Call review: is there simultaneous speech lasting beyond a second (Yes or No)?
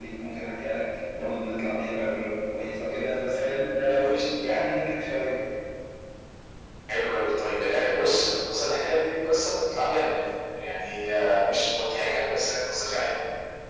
No